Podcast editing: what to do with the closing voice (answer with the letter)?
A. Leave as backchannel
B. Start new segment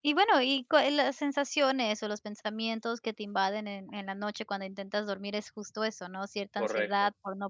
A